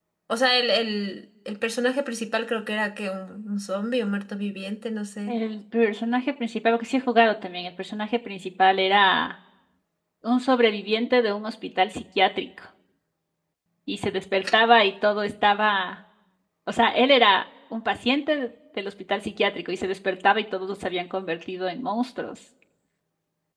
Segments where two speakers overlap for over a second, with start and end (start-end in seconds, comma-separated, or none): none